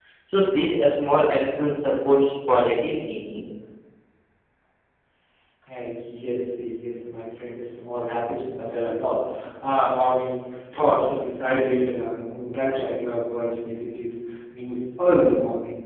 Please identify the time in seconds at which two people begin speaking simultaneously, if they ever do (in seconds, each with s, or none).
none